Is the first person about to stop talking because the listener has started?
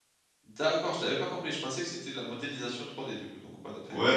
Yes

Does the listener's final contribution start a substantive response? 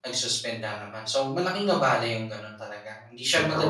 No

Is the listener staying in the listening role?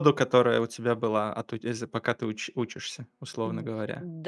No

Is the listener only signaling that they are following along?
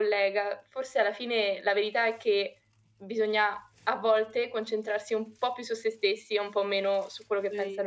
No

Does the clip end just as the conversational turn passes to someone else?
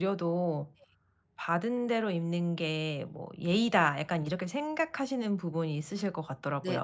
Yes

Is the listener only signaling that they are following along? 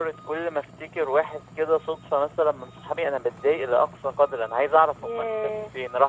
Yes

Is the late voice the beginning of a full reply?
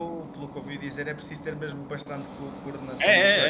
Yes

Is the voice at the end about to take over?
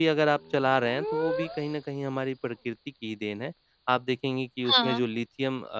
No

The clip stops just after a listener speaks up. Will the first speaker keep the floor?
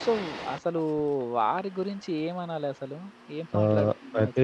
No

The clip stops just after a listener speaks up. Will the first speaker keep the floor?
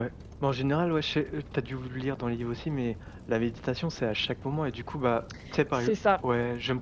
Yes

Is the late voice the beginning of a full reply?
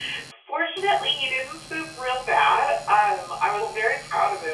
No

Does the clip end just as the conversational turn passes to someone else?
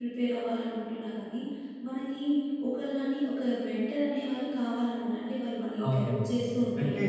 Yes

